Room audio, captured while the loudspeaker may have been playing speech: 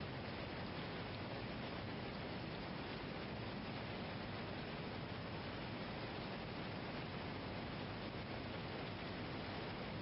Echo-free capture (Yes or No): Yes